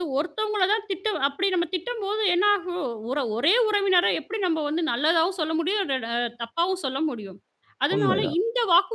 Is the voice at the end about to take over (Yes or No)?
No